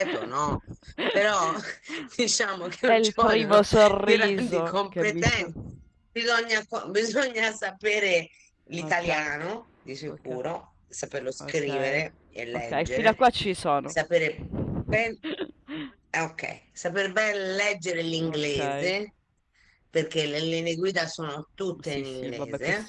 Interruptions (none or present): present